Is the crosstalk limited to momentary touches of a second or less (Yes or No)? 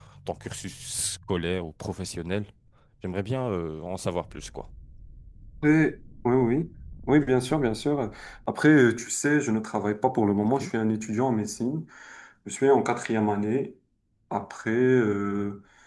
Yes